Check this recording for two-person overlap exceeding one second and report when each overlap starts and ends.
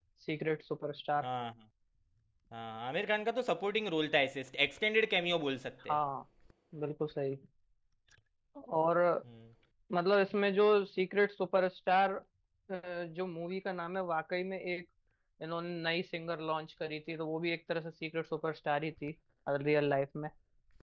none

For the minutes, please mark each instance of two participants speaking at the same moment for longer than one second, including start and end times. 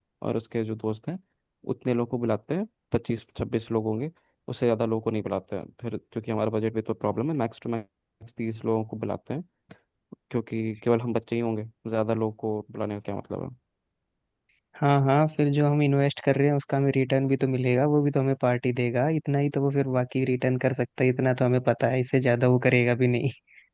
none

